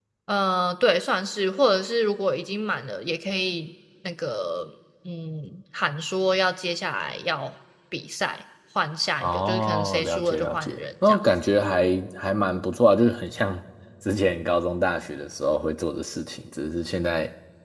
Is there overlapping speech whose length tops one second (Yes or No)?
Yes